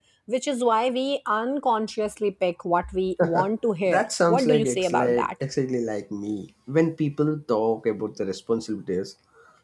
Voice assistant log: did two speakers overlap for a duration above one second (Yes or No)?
Yes